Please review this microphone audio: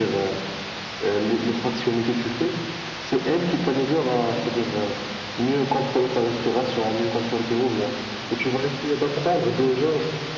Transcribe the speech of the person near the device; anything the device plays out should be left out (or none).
none